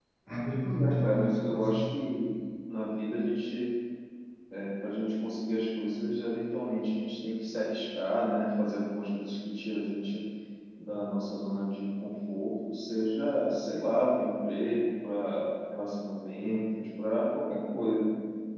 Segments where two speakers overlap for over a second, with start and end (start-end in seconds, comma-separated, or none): 0.6-1.8